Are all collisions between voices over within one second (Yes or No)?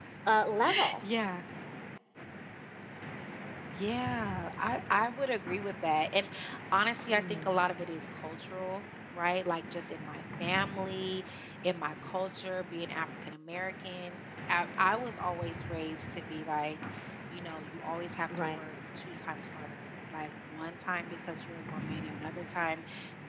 Yes